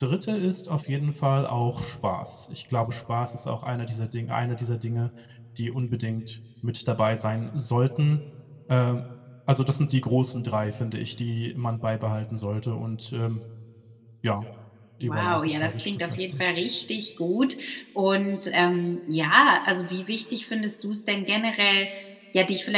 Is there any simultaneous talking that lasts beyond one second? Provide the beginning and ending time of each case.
15.0-16.4

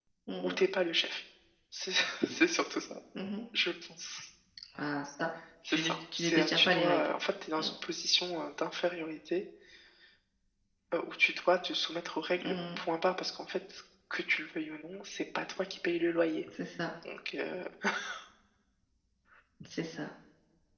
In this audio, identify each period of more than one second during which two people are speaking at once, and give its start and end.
5.7-7.1

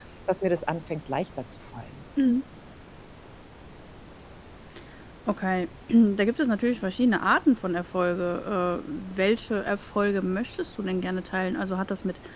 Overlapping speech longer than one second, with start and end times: none

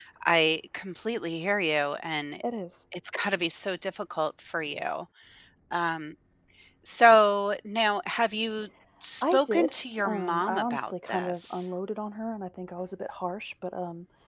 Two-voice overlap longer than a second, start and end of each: 9.2-11.7

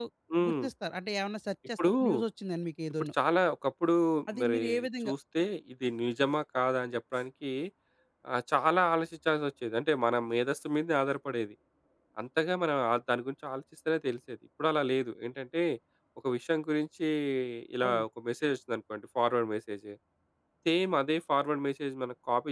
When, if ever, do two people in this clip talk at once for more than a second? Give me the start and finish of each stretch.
none

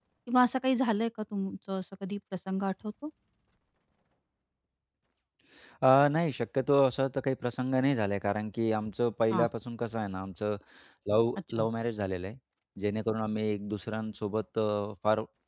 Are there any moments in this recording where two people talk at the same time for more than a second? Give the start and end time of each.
none

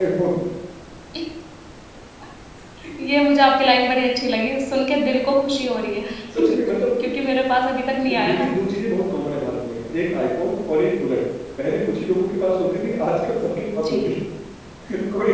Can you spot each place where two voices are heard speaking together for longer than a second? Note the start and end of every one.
none

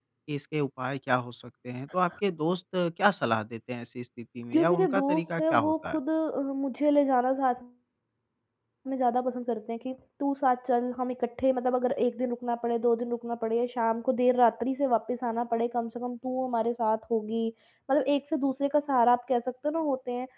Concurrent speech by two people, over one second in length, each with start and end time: 4.5-6.0

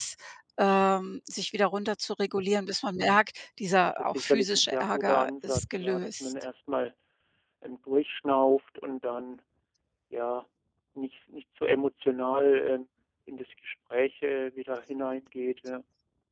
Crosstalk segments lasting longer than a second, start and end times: 4.0-6.3

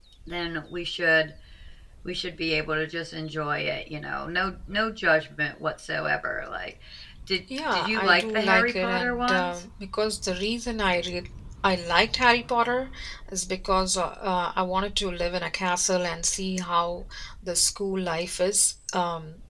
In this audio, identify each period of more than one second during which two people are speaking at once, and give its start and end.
7.7-9.6

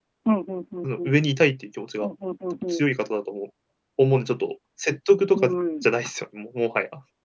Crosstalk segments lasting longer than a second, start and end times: none

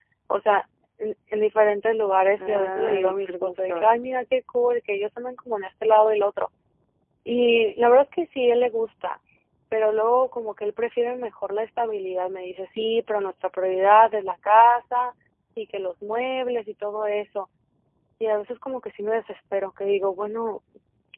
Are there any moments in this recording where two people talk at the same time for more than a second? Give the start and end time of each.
2.4-3.9

